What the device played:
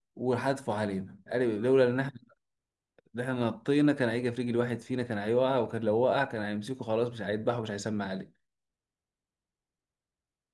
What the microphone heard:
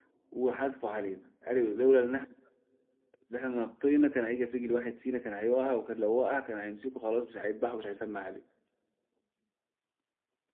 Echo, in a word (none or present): present